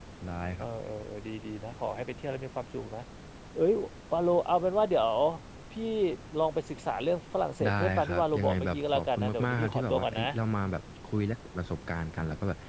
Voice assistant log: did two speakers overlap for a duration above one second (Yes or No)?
Yes